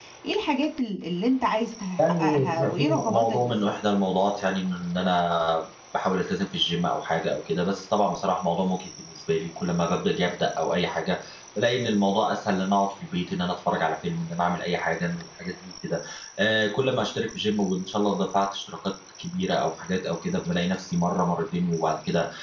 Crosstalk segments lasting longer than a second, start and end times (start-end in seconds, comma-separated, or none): 2.0-3.7